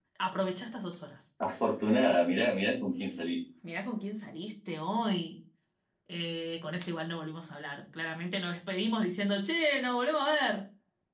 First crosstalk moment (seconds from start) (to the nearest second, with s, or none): none